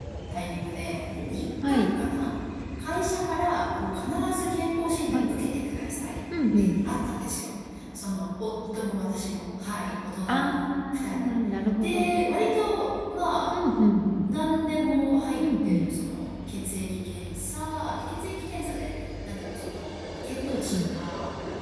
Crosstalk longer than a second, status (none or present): none